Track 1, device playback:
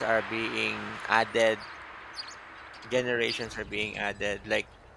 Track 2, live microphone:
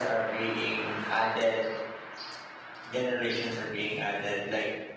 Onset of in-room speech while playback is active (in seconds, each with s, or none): none